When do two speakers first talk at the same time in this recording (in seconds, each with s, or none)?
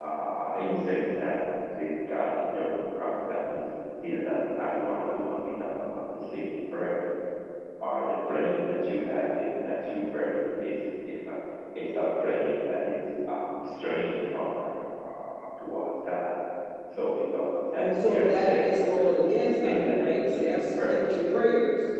17.8 s